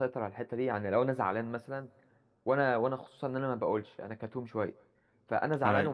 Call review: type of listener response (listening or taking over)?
listening